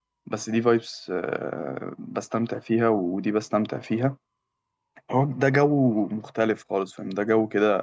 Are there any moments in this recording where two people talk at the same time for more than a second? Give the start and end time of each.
none

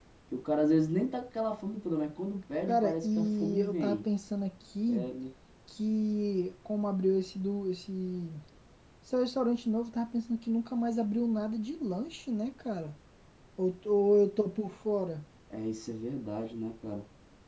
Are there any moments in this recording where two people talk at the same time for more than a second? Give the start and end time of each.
2.7-4.0

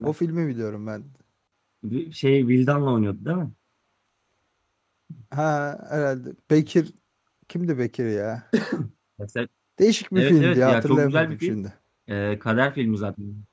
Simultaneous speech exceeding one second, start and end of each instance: 10.2-11.6

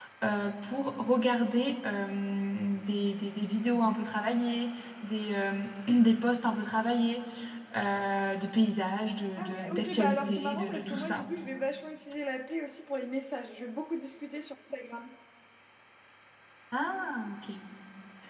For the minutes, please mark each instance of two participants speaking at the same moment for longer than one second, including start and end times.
9.4-11.2

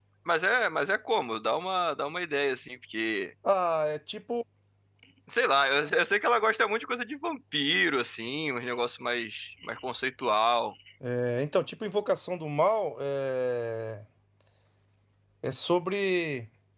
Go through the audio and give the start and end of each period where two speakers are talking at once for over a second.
none

